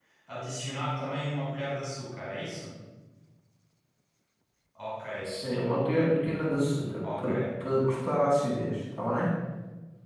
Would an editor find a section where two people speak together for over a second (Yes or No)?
No